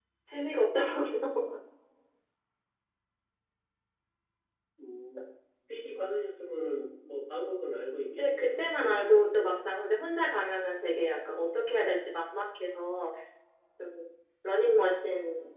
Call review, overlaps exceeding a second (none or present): present